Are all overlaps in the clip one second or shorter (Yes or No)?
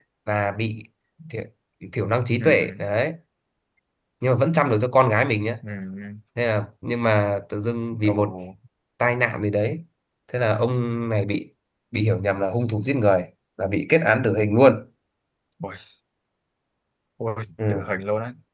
Yes